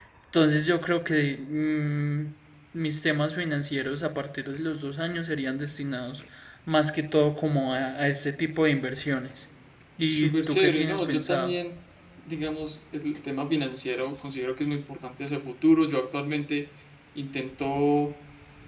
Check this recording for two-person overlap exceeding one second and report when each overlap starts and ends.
10.1-11.5

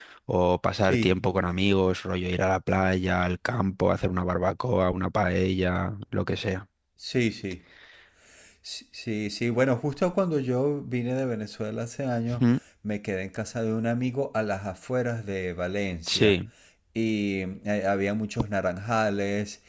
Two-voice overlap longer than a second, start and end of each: none

